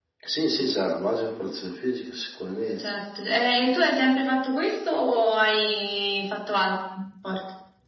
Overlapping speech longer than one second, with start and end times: none

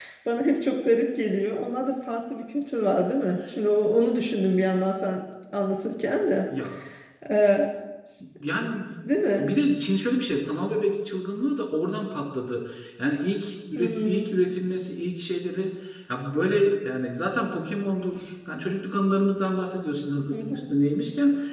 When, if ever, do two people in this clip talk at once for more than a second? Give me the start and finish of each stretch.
none

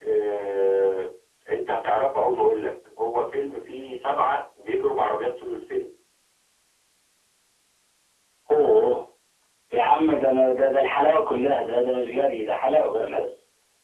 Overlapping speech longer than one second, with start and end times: none

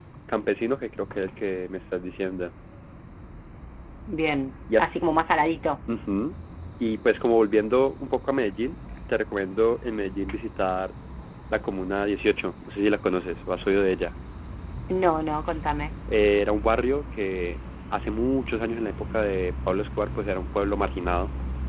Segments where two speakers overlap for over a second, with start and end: none

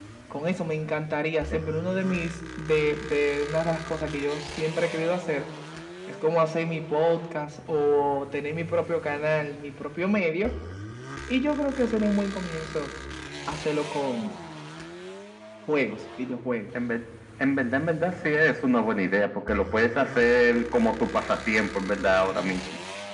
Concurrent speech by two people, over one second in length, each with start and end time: none

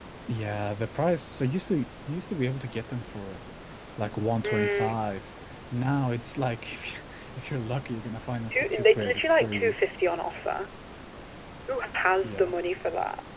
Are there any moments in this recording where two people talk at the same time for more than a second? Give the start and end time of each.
8.5-9.7

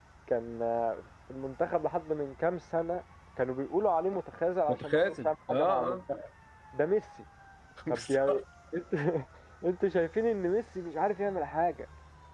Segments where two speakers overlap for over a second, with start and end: 4.7-6.0

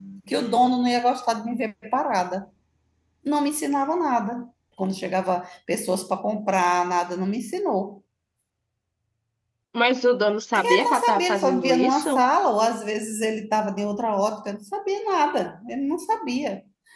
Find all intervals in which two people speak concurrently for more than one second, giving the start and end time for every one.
10.6-12.2

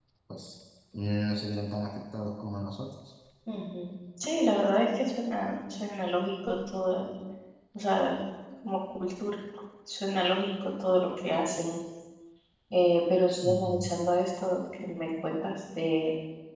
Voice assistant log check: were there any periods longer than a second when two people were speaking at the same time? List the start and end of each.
none

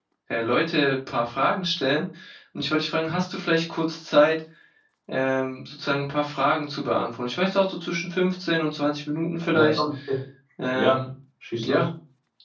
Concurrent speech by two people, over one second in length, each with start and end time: none

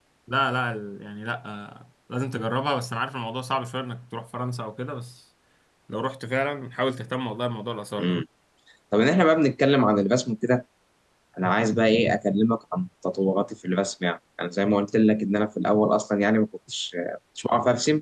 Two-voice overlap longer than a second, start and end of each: none

